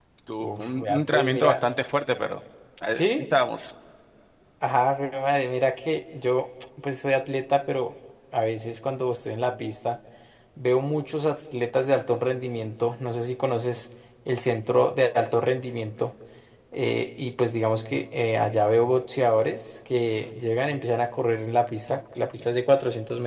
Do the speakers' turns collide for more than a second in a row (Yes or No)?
Yes